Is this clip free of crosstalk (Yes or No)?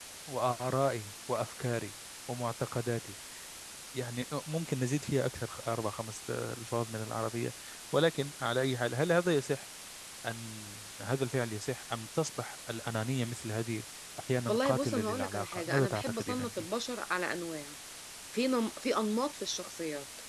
No